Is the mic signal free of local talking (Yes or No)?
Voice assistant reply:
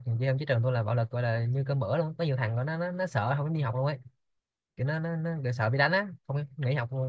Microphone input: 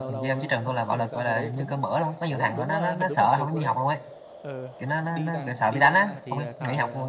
No